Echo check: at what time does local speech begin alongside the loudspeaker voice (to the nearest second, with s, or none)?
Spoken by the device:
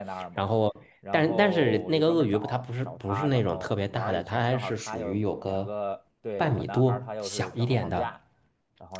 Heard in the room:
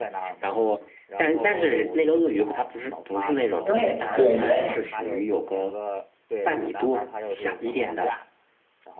4 s